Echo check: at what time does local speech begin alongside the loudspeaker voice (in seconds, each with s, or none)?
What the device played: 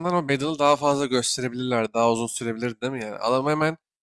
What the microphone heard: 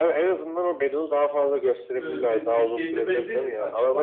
2.0 s